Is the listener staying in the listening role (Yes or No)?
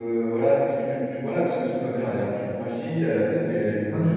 Yes